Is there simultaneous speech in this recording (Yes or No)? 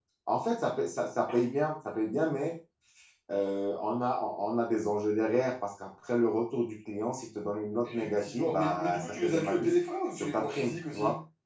Yes